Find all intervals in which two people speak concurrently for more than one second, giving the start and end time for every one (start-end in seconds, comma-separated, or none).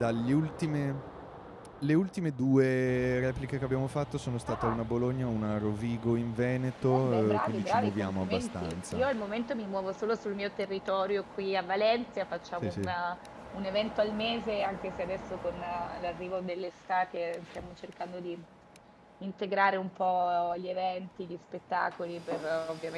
6.8-9.0